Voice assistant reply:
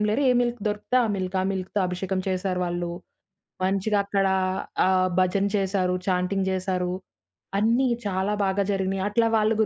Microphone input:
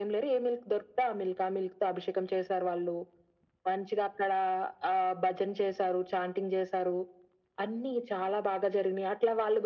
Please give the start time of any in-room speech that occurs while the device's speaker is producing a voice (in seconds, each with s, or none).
none